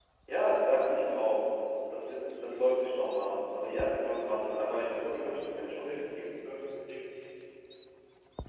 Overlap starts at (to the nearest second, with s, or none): 4 s